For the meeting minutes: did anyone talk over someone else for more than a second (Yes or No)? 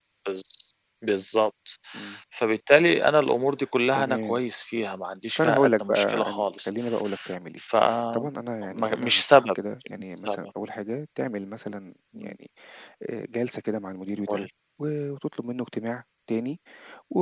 Yes